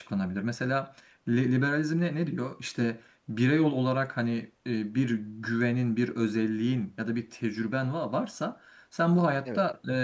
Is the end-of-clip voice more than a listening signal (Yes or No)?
No